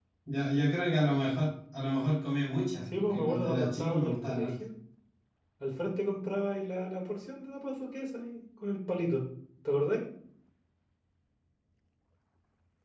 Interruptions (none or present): present